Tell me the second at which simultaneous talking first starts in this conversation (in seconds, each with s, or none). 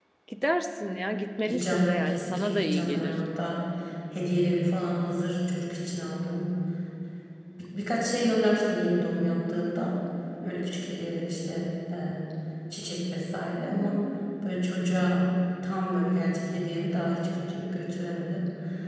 1.4 s